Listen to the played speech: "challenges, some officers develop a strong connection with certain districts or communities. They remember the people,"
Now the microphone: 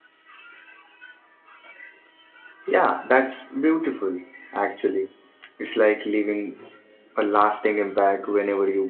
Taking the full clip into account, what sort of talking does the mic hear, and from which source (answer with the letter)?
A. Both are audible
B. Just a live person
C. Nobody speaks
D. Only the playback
B